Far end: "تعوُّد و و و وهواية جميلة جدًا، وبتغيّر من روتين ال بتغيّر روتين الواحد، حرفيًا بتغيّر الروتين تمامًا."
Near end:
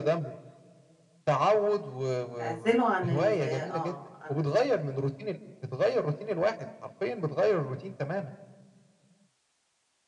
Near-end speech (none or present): present